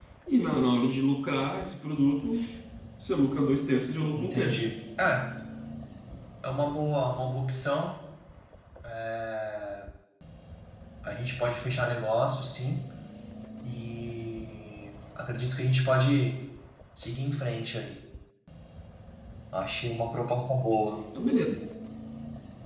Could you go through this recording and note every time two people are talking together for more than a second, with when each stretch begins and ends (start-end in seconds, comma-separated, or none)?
none